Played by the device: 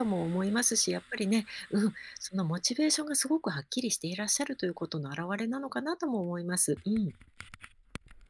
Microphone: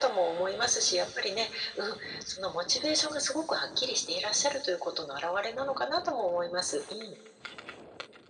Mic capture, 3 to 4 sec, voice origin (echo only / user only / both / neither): echo only